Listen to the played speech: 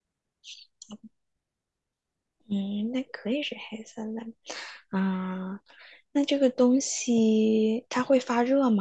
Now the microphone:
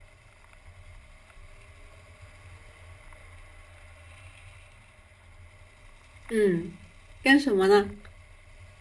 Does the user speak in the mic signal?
Yes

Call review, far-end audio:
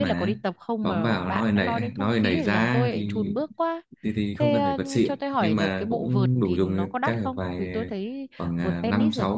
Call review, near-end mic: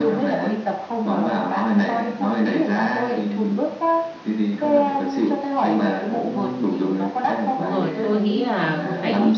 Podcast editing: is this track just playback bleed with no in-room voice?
No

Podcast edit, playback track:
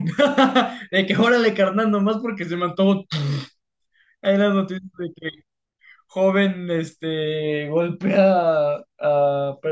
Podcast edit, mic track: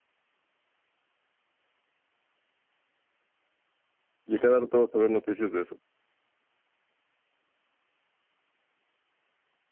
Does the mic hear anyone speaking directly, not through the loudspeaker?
Yes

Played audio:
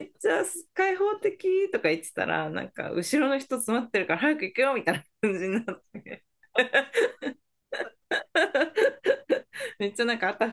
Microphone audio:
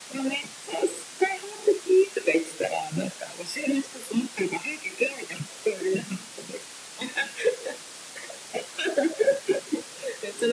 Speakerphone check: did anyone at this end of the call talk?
No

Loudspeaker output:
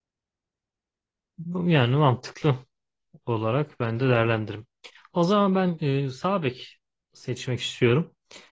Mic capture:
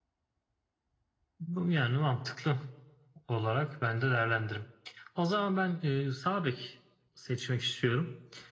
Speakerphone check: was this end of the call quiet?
Yes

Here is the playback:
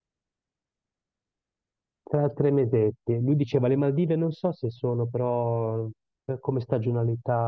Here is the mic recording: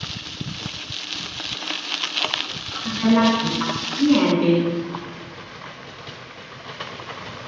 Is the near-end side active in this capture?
Yes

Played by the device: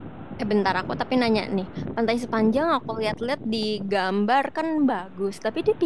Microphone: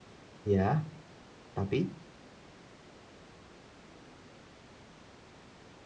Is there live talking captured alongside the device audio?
Yes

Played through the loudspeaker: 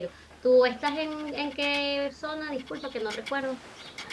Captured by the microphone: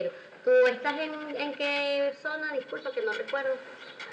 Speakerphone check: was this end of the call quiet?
Yes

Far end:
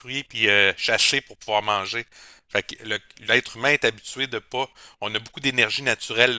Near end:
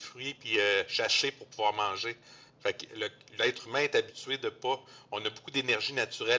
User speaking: No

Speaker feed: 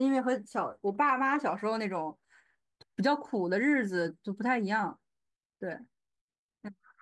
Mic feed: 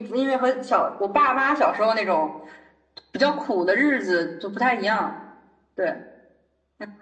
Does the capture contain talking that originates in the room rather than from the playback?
No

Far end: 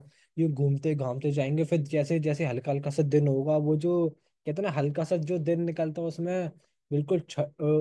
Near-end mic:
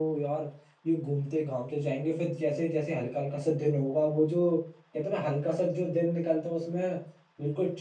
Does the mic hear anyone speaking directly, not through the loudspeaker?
No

